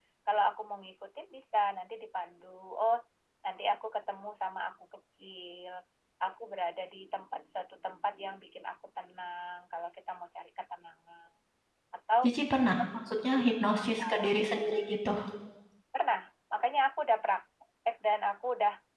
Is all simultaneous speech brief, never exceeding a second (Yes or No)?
No